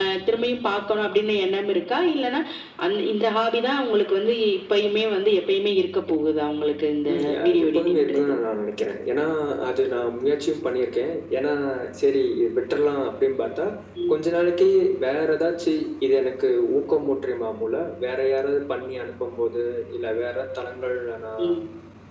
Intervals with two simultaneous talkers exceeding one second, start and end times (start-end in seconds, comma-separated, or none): 7.1-8.3